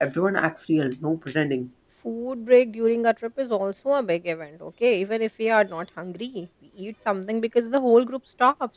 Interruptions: none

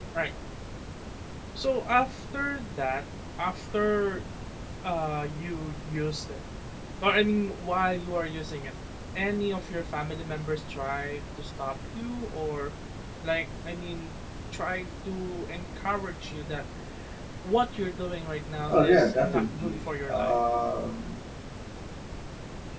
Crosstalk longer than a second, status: present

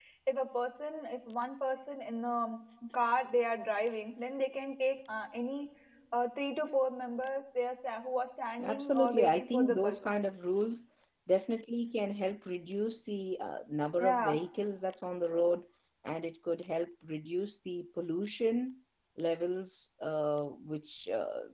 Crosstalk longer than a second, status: present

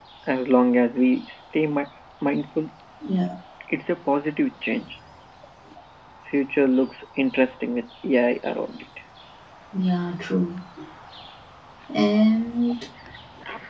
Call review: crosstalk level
none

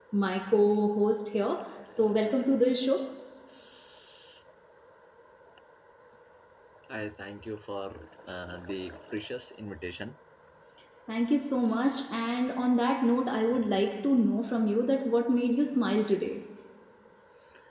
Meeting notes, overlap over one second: none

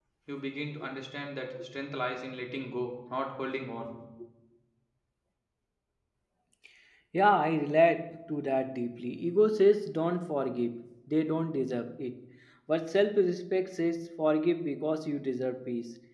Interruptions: none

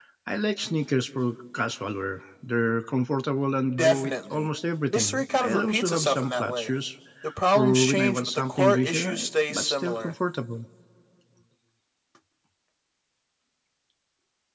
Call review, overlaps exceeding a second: present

